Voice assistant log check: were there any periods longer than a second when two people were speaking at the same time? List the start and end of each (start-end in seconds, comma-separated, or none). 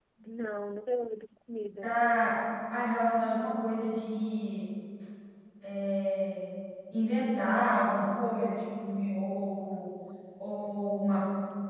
none